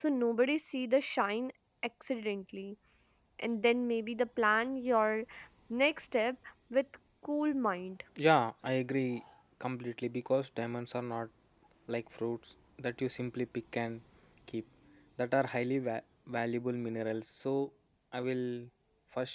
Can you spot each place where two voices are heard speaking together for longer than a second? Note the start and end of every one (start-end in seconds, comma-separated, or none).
none